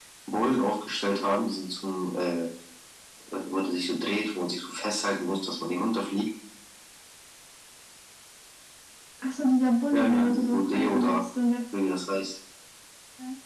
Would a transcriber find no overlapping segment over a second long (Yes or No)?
No